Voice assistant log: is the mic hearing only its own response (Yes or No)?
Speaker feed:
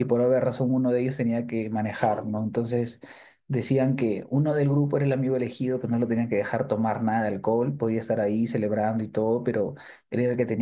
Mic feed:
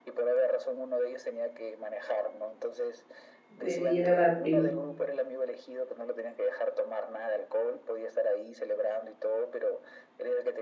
No